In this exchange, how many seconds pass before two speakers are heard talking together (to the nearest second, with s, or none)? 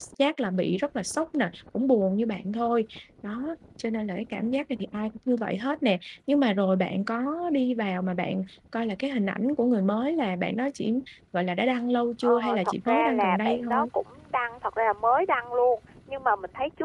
12 s